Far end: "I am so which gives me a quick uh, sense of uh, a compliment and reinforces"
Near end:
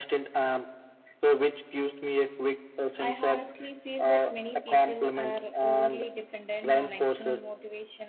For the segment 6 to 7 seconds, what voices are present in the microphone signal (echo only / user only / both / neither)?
both